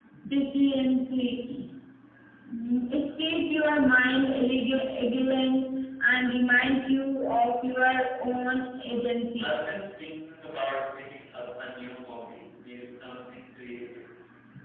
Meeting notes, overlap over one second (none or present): none